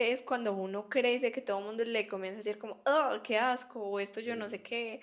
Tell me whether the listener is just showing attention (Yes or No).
Yes